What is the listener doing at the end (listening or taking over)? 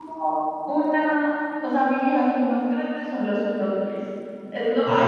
listening